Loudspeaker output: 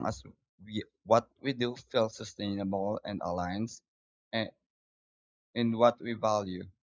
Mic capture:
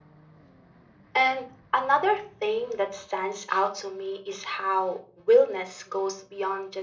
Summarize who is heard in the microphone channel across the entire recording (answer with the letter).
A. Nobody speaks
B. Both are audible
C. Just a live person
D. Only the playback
C